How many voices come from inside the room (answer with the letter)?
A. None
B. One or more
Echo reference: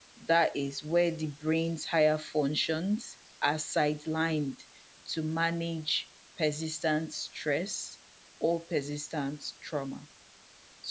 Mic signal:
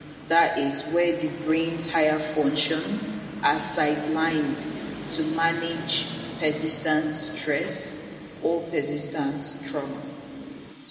A